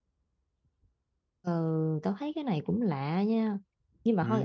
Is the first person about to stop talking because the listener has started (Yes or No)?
No